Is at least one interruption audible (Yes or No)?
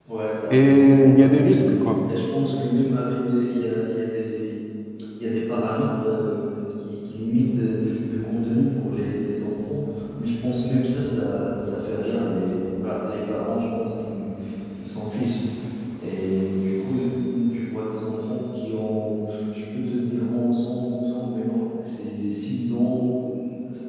Yes